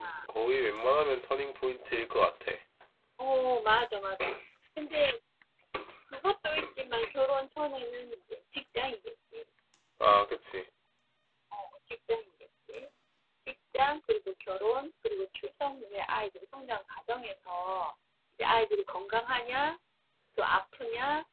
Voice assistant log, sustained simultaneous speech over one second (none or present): none